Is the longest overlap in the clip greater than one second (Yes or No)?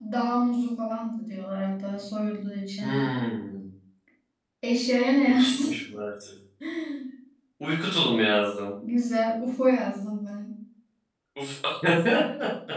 No